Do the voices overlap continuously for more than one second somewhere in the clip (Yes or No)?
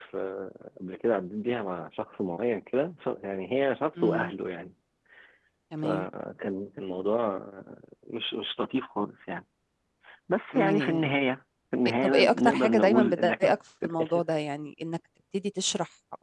Yes